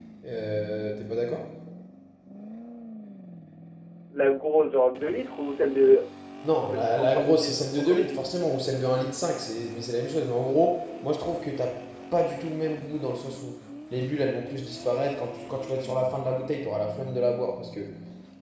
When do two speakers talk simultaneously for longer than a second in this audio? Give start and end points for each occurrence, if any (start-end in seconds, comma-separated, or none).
6.7-8.2